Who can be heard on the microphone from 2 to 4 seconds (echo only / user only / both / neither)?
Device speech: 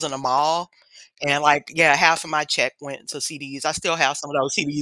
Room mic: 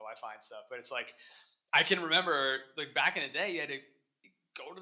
user only